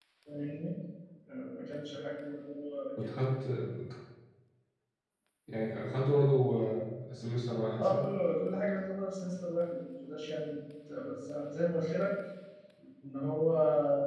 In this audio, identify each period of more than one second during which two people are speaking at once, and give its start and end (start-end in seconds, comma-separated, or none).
none